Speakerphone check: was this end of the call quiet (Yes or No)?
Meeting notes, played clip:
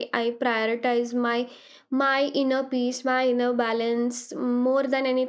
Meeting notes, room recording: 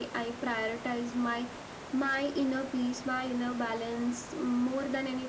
Yes